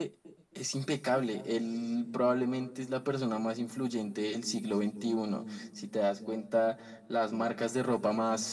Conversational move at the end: listening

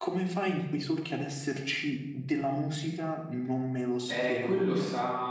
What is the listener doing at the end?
taking over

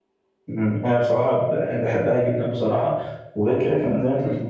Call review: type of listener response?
listening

